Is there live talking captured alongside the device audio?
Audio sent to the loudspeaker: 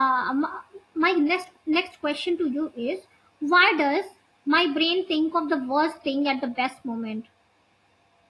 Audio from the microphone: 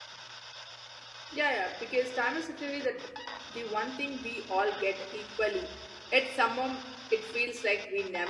Yes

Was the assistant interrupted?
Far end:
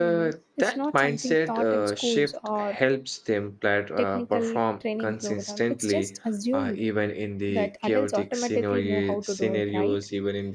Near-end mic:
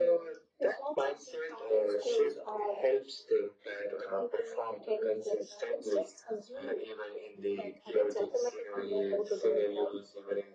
No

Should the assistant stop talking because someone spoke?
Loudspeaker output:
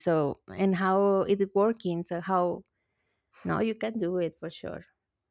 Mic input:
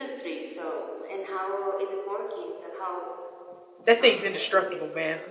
Yes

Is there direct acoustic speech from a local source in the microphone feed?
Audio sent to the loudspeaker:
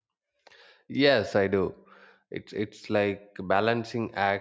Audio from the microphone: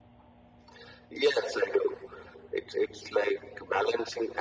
No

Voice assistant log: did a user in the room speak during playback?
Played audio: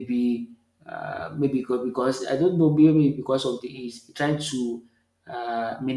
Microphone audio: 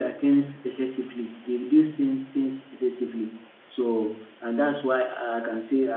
Yes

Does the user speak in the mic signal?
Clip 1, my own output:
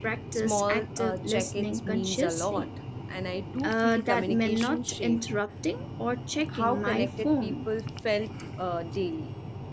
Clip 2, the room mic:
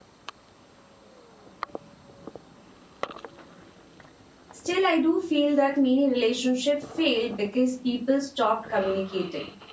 Yes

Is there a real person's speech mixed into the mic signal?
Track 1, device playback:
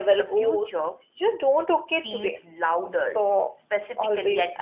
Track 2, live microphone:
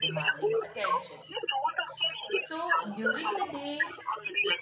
Yes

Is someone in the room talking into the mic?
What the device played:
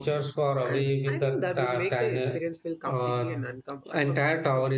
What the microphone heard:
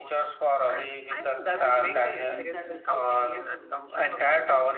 Yes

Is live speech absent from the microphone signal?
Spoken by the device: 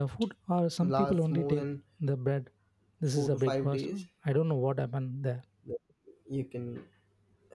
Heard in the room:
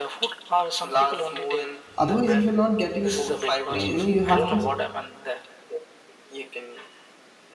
No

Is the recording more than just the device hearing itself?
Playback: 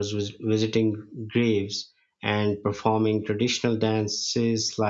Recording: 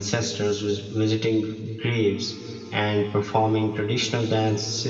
No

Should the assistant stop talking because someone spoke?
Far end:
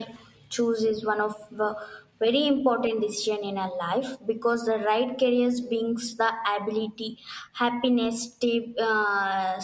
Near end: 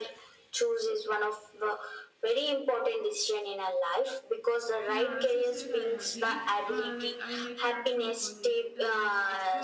Yes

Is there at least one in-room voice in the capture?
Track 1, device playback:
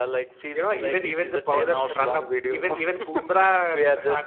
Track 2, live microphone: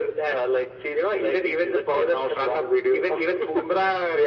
No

